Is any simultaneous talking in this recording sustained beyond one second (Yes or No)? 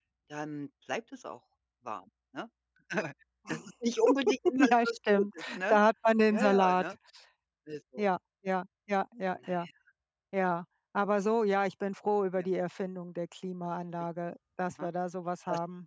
Yes